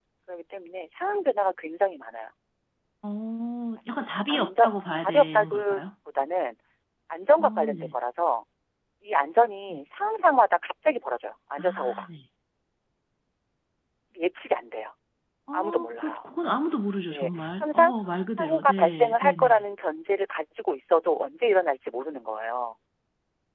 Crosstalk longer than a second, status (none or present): present